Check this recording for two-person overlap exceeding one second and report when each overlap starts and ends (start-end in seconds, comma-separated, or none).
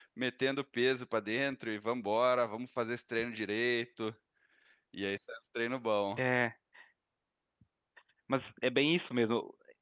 none